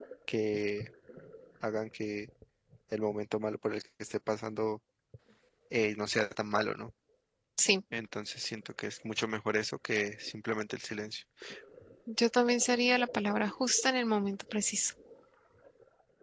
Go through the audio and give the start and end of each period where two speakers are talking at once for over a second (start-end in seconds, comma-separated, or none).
none